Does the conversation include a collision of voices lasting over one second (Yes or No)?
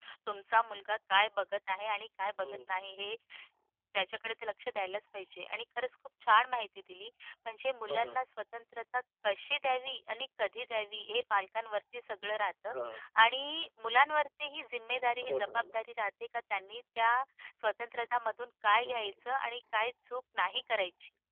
No